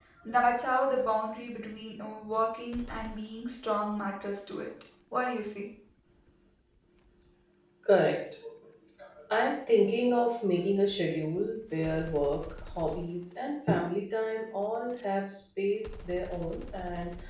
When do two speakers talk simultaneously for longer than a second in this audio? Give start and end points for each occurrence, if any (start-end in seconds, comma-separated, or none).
none